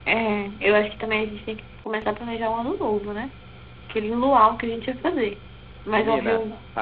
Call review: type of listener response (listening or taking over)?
taking over